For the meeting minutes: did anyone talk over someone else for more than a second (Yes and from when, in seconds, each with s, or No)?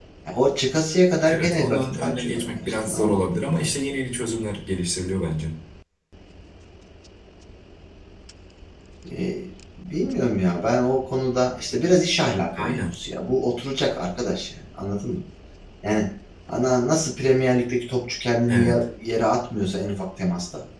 Yes, from 1.2 s